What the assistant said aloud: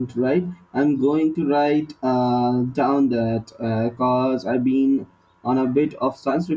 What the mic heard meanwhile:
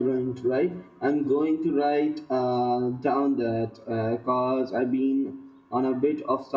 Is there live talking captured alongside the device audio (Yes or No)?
No